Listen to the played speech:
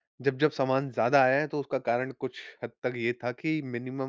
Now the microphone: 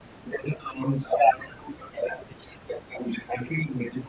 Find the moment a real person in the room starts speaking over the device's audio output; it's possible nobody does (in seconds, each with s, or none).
none